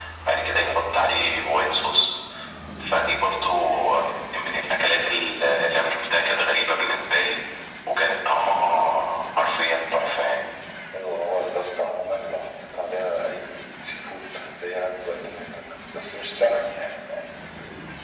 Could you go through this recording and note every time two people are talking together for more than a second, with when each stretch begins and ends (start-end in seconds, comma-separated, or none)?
none